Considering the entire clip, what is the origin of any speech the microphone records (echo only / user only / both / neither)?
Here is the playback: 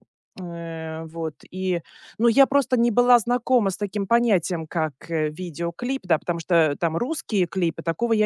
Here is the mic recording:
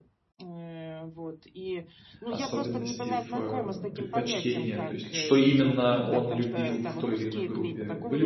both